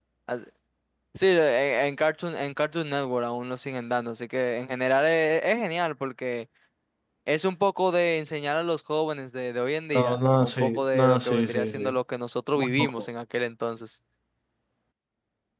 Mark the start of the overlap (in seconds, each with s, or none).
9.9 s